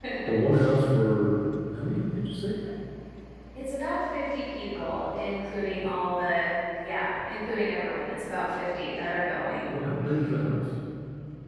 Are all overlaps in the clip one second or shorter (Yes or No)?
Yes